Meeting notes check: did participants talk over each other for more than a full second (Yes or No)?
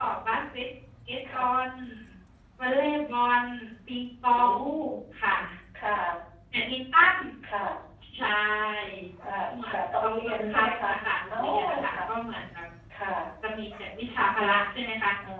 Yes